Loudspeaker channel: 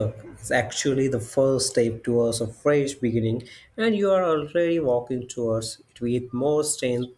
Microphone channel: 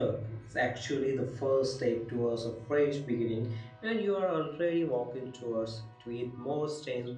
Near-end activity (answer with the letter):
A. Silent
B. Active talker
A